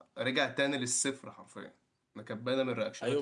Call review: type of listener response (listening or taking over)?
taking over